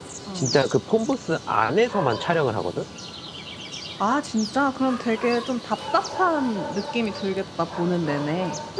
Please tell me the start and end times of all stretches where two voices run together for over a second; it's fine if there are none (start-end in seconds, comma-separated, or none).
none